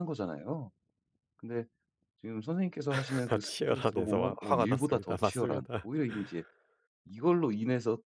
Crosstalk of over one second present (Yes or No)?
Yes